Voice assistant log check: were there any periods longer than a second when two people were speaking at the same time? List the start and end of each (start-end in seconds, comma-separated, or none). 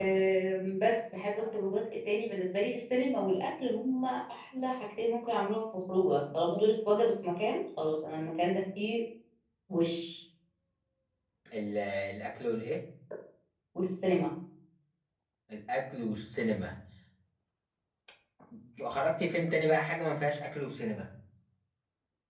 none